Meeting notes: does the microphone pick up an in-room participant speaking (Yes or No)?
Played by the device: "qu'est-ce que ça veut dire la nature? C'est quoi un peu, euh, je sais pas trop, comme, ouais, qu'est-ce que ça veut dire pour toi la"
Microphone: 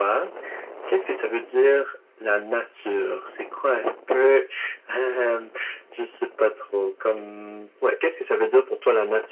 No